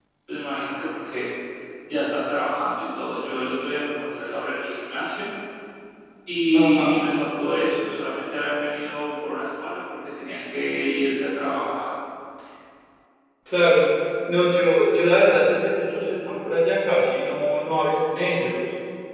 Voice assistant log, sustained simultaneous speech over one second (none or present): none